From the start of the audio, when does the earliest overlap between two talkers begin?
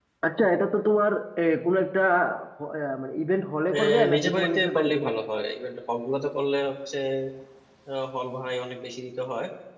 3.7 s

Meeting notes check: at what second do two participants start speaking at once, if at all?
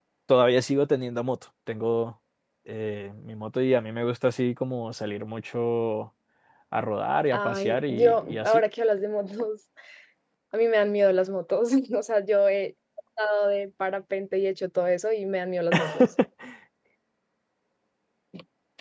7.3 s

